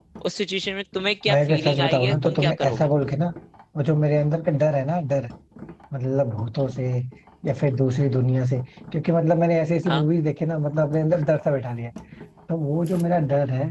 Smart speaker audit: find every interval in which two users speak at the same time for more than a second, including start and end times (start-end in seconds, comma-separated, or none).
1.3-2.9